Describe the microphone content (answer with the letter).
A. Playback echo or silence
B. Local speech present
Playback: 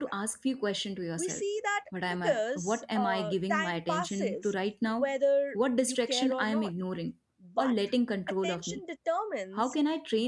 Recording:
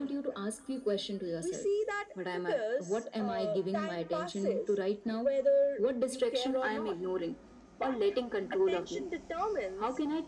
A